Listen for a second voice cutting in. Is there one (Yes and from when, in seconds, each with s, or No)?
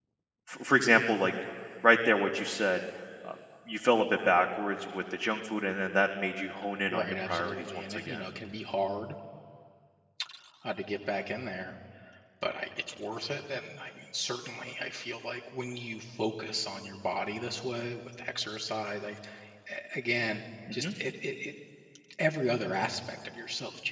Yes, from 6.9 s